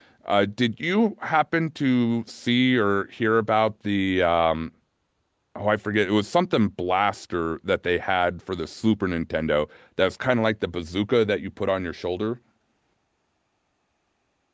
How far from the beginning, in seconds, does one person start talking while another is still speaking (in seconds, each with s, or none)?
none